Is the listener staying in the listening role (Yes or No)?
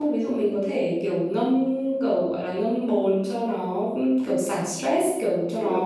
Yes